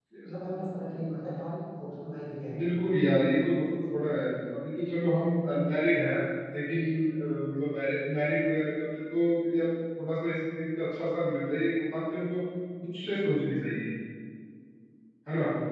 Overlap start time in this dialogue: none

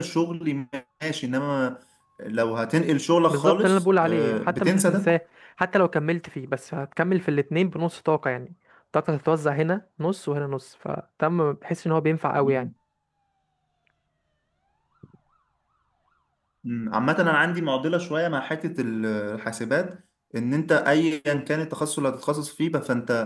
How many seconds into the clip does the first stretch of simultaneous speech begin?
3.3 s

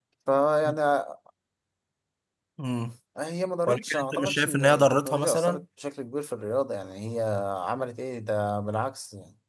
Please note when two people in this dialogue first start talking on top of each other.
3.7 s

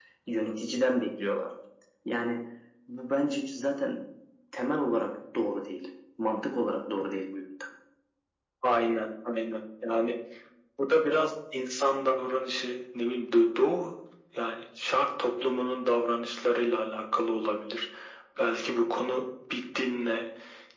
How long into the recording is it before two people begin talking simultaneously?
none

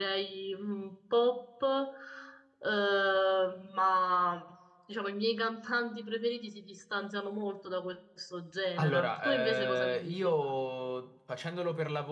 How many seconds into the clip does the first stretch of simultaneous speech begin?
8.8 s

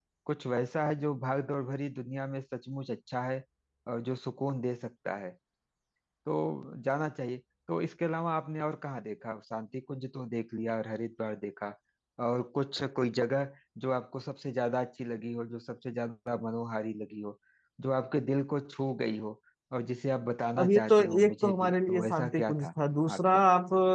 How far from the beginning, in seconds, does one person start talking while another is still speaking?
20.6 s

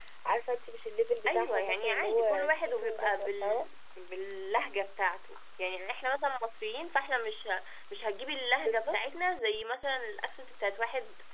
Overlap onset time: 1.3 s

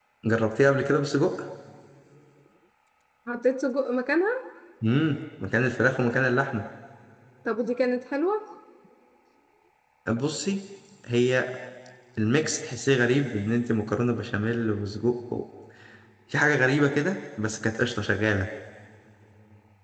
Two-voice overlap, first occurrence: none

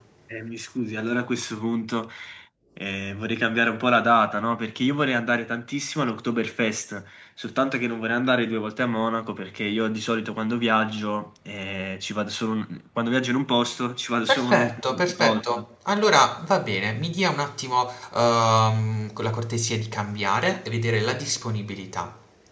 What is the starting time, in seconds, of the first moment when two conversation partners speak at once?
14.3 s

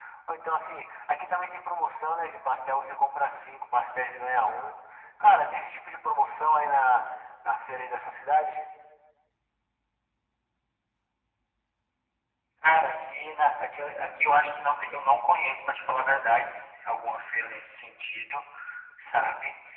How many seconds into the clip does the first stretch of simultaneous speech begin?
none

